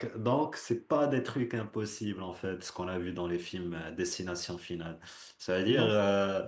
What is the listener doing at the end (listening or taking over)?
listening